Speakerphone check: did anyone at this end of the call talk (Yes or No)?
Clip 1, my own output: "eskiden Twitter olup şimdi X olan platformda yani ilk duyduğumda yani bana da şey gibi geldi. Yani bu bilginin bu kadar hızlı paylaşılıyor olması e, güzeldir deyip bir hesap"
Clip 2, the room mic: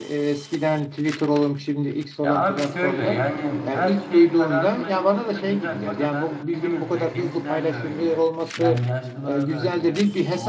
Yes